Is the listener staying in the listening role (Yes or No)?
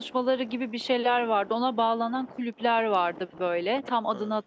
Yes